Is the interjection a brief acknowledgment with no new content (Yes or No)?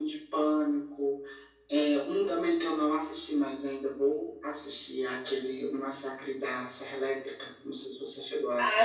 No